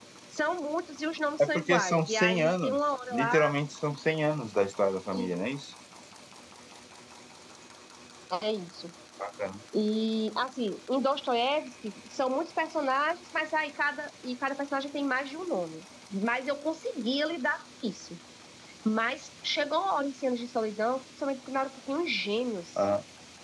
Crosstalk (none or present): present